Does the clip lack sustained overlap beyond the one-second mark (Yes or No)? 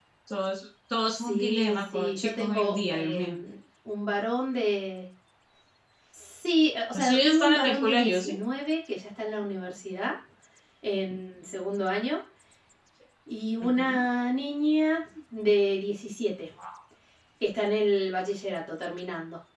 No